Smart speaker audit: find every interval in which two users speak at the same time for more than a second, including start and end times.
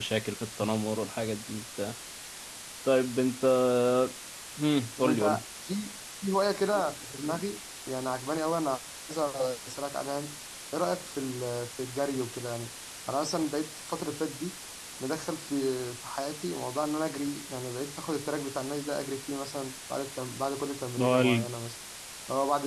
none

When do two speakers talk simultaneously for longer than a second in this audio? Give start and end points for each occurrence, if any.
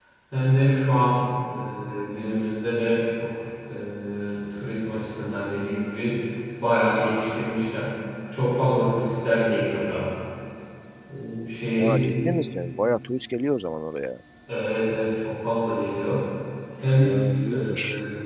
none

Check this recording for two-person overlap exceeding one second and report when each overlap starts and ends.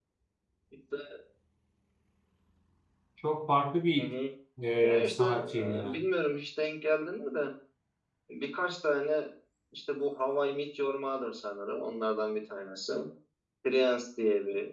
4.8-6.0

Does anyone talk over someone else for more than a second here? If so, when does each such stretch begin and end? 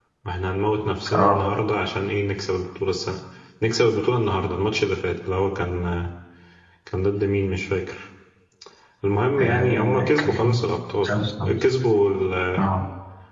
9.4-10.6

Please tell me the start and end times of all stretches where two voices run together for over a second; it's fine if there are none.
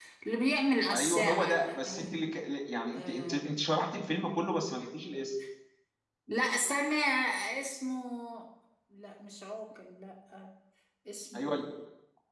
0.9-2.1

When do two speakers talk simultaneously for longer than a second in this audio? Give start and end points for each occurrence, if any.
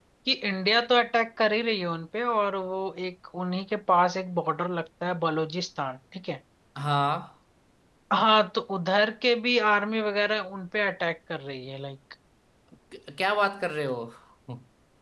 none

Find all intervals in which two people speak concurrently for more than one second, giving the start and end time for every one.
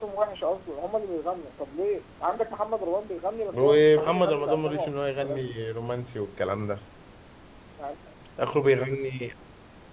3.5-5.5

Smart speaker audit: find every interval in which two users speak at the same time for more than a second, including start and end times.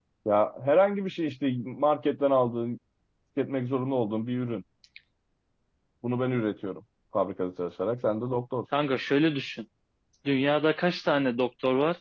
none

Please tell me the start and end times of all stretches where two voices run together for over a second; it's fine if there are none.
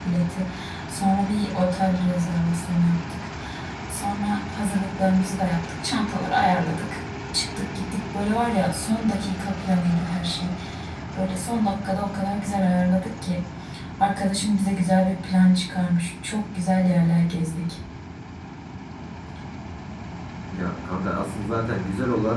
none

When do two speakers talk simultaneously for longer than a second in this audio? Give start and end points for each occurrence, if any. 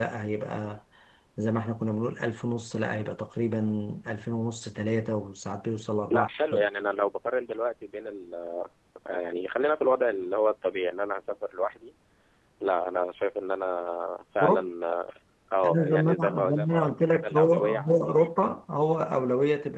15.6-18.1

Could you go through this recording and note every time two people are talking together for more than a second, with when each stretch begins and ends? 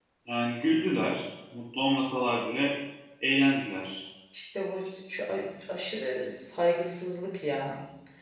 none

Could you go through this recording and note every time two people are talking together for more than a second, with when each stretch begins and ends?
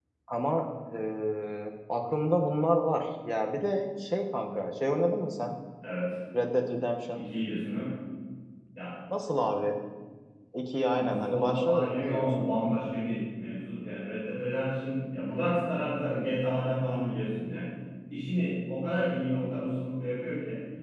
11.0-12.5

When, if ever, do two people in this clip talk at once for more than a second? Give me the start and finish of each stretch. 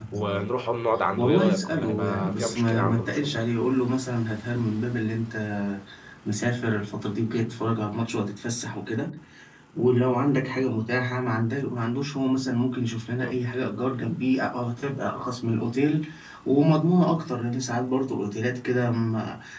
1.2-3.4

